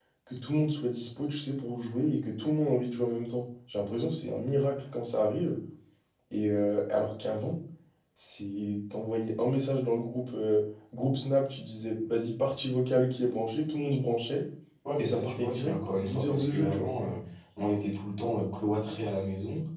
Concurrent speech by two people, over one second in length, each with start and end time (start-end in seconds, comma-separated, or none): 15.0-16.9